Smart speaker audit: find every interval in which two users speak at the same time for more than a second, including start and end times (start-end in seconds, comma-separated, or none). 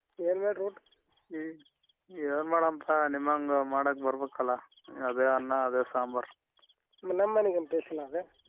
none